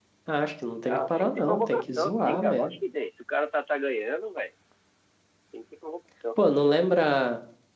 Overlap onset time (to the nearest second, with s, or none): 1 s